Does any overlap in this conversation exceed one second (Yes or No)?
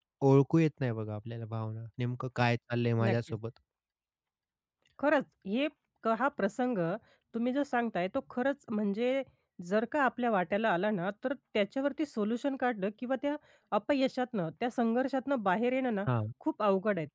No